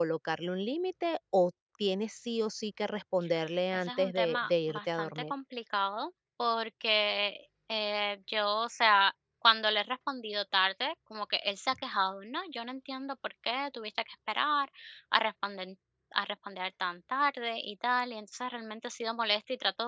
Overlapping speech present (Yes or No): Yes